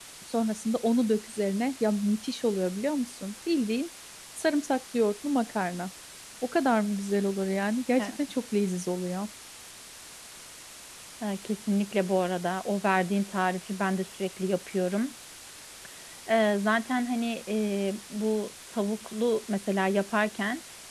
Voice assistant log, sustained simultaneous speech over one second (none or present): none